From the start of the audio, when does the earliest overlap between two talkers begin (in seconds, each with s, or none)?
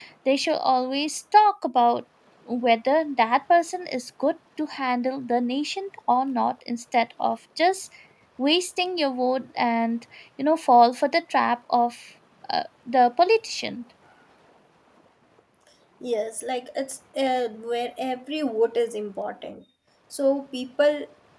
none